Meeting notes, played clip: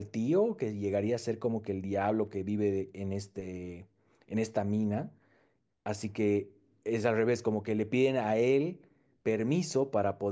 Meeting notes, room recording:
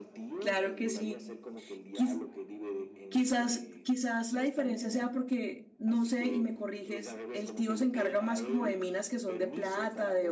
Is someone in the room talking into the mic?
Yes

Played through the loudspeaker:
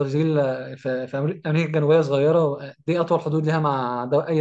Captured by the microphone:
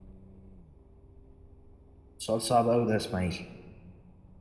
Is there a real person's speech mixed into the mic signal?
Yes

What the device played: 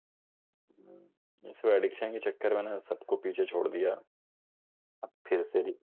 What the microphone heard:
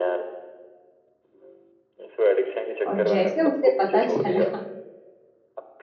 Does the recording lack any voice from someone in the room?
No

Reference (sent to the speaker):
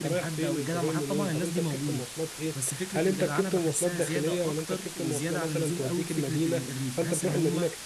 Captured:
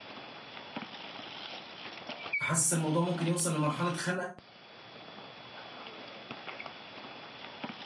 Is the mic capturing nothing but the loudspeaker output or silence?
No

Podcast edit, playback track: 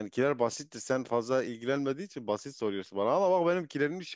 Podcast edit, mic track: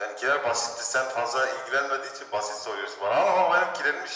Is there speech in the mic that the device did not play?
No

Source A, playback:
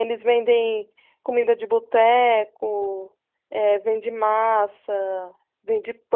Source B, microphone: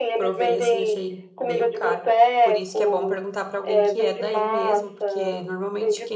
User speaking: Yes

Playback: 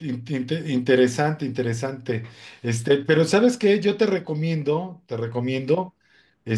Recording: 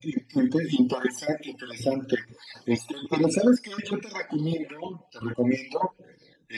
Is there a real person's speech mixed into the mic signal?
No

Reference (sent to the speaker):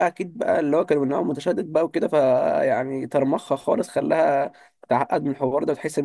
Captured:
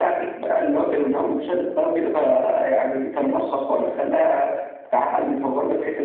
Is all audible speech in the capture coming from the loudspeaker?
Yes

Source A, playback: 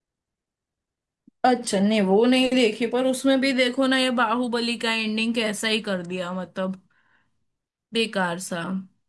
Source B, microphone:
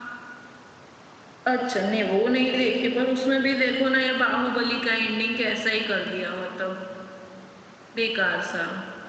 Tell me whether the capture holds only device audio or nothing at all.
Yes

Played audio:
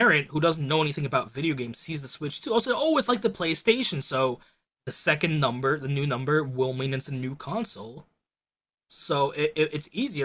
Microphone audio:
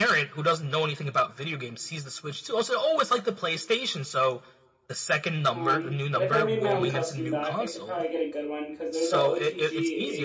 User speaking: Yes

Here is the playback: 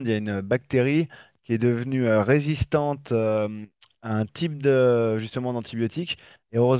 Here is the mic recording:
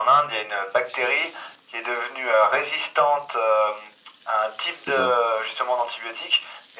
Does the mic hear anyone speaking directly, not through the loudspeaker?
Yes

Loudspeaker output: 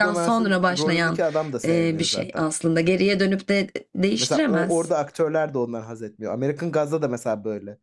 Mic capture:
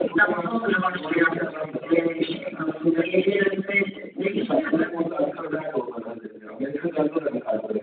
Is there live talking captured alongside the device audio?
No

